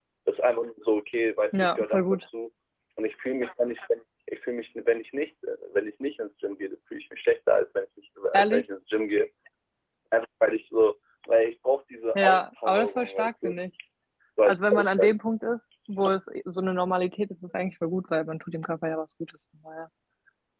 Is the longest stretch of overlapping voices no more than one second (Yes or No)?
No